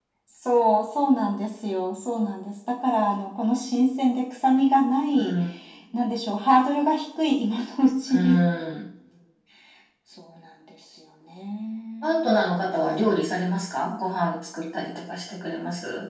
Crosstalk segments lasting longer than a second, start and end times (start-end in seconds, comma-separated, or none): none